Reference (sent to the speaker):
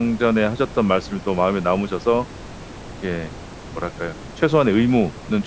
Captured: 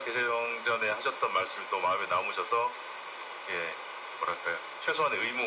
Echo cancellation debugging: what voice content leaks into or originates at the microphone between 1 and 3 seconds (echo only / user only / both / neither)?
echo only